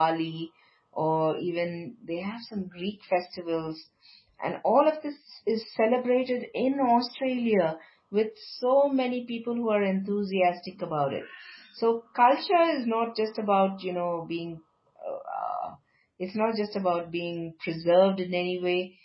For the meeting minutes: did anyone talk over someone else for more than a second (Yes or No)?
No